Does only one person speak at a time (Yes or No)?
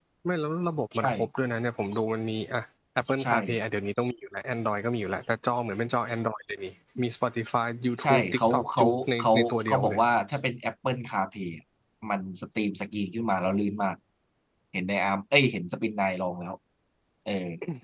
No